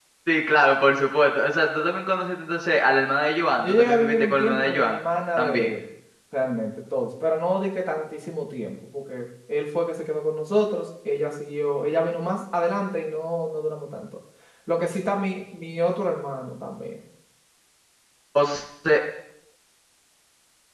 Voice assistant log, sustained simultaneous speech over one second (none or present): present